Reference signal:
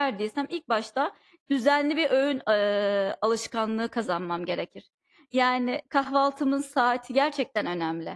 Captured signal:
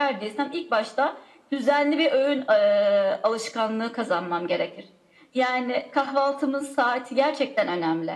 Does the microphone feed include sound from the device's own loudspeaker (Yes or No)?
Yes